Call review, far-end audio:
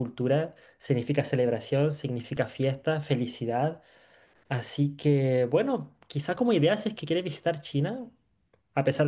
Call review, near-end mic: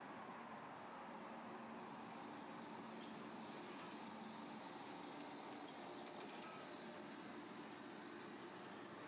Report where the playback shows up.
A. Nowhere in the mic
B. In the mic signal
A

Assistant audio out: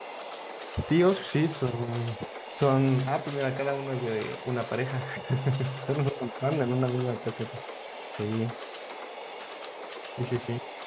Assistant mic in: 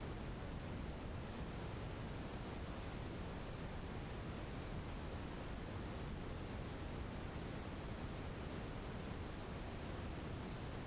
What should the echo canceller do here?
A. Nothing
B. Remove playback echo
A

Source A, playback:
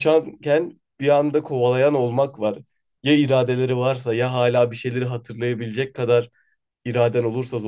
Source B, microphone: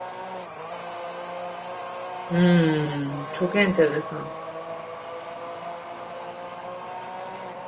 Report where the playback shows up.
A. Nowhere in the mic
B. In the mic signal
A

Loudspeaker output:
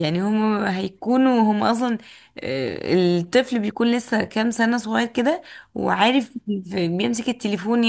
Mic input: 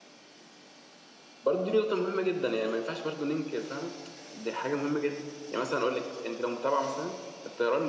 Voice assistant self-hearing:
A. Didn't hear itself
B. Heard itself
A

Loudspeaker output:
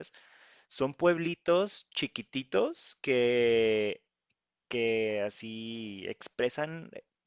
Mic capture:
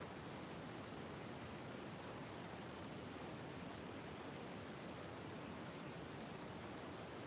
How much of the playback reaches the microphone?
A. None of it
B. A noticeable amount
A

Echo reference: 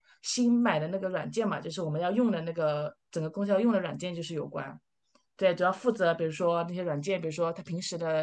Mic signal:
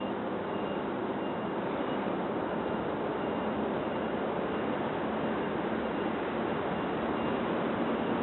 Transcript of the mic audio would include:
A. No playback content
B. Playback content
A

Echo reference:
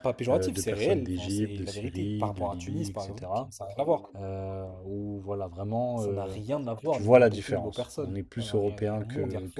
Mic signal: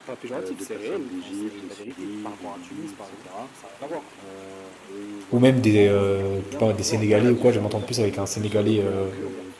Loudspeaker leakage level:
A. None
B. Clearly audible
B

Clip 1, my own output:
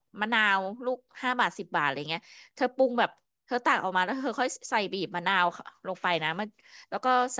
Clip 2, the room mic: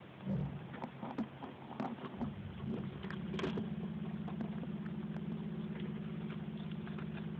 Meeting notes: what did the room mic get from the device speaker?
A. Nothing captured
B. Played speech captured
A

